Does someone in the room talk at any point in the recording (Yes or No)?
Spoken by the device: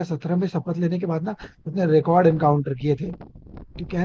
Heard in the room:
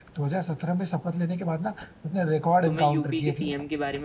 Yes